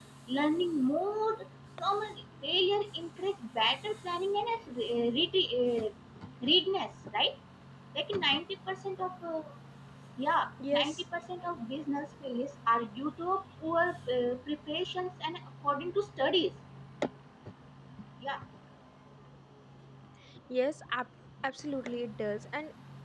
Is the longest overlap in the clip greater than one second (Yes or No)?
No